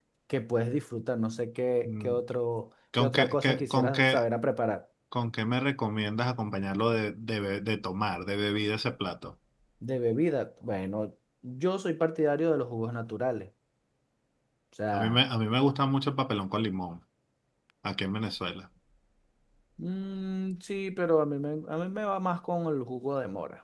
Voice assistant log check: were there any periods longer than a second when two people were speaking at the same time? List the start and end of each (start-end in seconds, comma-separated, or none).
3.0-4.2